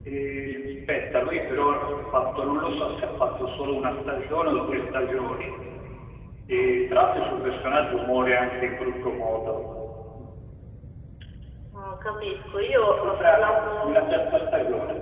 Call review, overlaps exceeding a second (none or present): present